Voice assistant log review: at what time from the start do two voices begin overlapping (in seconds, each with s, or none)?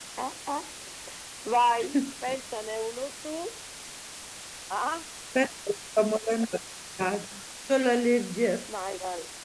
none